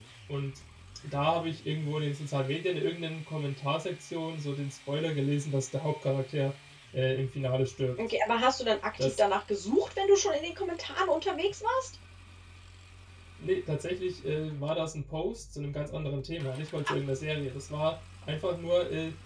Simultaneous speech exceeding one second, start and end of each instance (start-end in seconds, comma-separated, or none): none